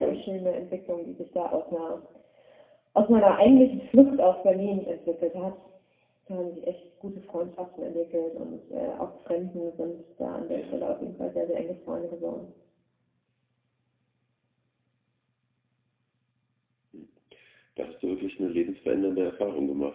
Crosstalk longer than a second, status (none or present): none